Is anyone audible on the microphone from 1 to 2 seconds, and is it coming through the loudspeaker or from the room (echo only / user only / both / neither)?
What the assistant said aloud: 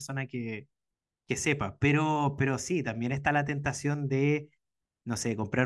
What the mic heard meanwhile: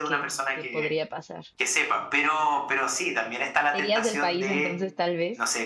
both